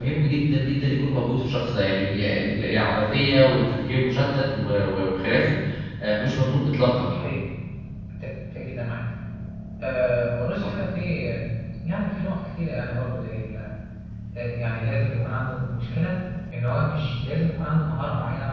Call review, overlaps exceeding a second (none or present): none